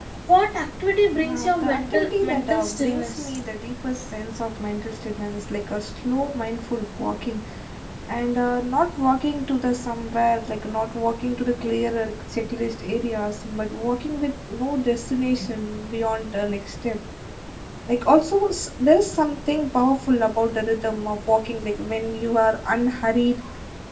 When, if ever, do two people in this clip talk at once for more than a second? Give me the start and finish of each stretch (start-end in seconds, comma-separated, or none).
1.1-3.3